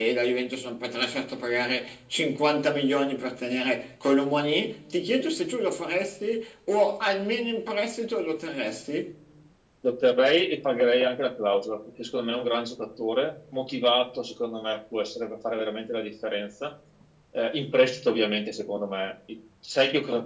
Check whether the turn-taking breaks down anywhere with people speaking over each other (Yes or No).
No